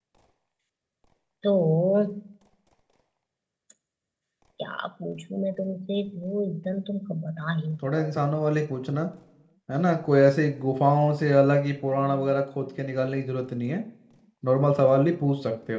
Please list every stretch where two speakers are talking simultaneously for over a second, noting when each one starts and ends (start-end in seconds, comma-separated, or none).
none